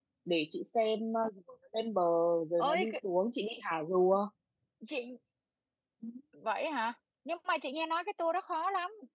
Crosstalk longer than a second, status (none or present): none